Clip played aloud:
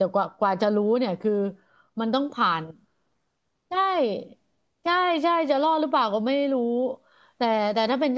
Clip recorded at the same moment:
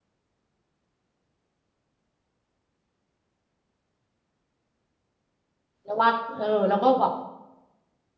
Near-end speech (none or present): present